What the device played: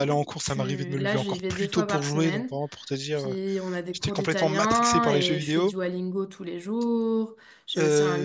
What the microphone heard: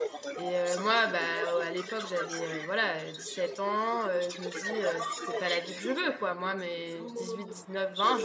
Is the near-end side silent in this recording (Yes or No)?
No